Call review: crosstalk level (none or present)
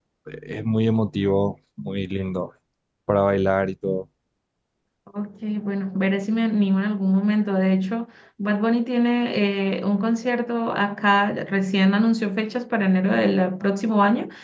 none